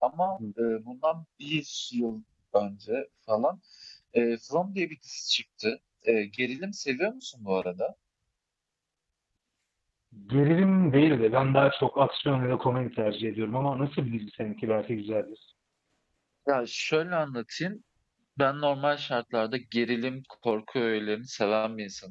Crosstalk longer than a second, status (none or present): none